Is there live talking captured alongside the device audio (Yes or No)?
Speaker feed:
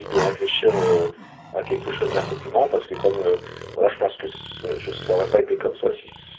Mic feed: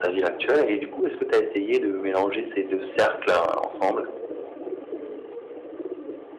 Yes